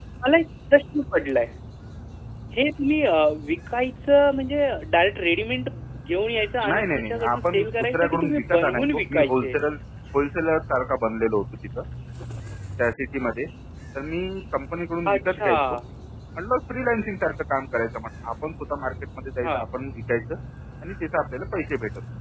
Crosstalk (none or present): present